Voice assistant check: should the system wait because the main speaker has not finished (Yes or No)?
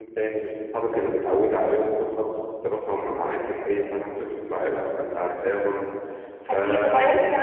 No